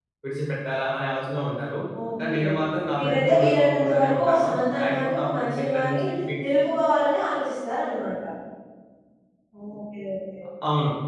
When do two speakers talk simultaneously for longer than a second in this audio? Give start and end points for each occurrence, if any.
3.0-6.0

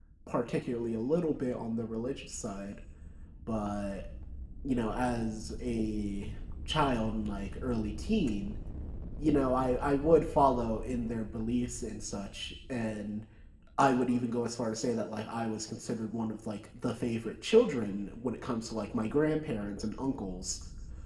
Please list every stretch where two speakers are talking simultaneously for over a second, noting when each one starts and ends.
none

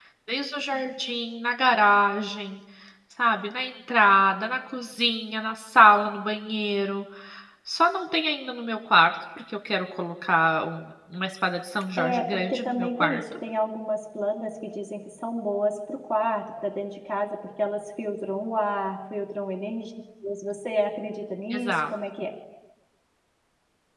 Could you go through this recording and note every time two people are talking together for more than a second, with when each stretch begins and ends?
12.0-13.2

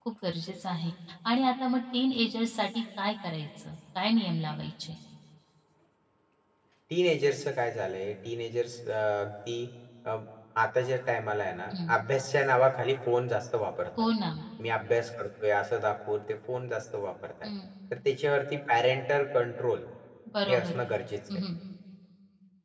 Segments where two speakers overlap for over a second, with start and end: none

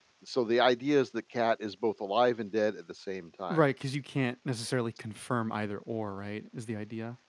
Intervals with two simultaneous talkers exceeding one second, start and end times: none

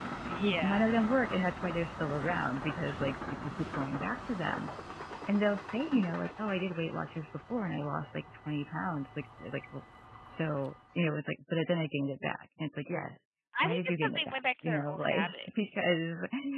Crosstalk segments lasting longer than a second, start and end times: 13.6-15.7

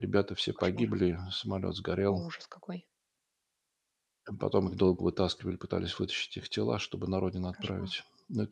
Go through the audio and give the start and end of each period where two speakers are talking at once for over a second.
none

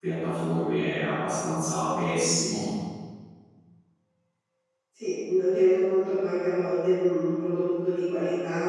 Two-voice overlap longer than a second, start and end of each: none

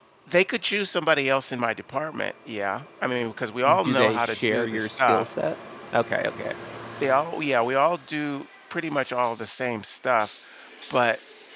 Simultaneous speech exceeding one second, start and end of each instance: 3.9-5.2

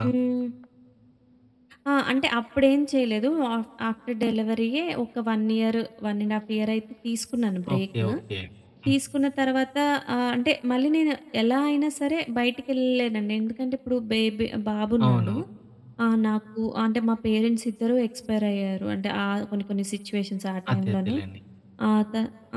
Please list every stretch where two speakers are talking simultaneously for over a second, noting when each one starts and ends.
none

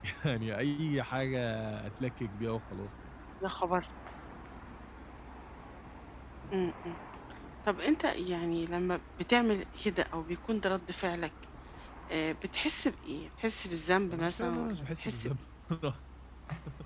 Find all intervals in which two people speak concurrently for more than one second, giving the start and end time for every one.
14.1-15.3

